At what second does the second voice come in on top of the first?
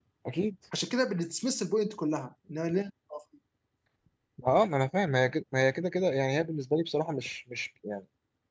none

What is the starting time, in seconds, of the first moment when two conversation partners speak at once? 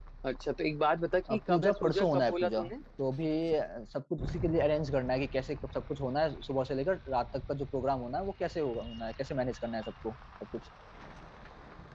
1.3 s

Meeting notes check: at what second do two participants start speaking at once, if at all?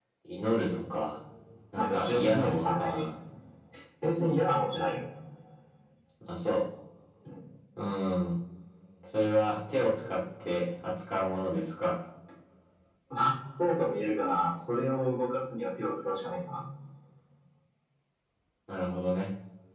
1.8 s

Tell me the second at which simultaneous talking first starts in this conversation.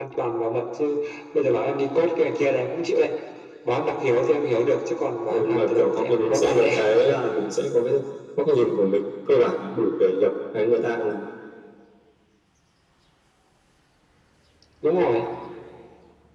5.3 s

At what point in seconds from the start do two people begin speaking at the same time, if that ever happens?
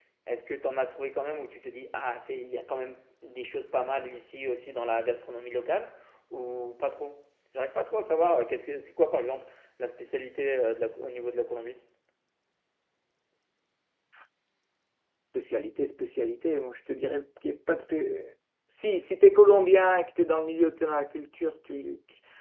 none

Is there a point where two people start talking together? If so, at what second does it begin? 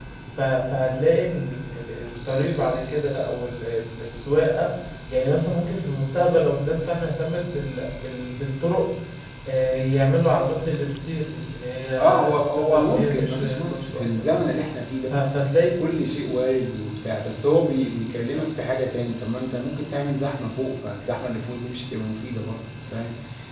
12.0 s

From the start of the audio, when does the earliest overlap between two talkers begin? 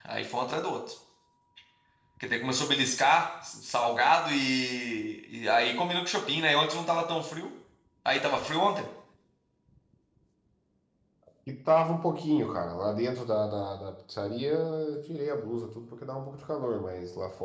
none

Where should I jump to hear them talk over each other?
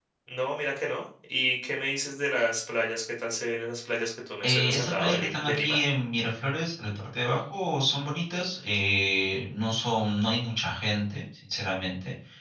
4.4 s

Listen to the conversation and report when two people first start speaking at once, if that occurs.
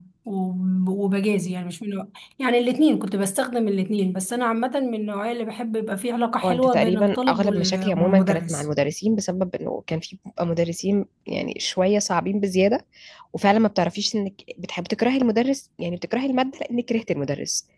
6.4 s

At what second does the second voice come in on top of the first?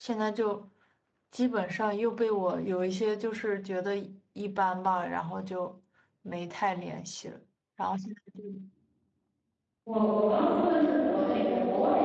none

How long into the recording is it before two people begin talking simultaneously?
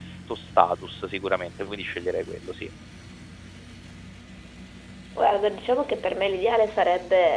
none

